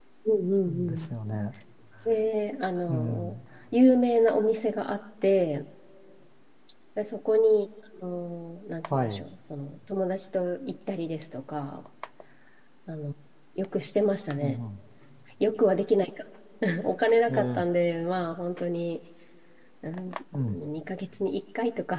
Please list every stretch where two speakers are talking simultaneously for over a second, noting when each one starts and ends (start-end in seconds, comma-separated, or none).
none